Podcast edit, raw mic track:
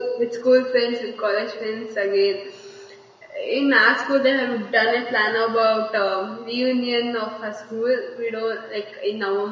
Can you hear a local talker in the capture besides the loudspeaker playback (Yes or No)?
No